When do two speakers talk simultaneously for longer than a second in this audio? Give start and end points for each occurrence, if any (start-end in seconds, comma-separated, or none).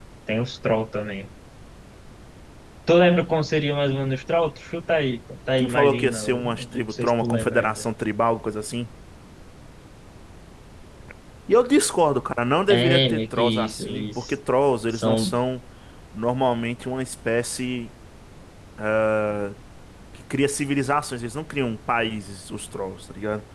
5.6-7.8, 12.7-14.3